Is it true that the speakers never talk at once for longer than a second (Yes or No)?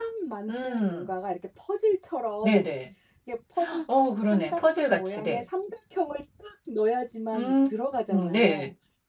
No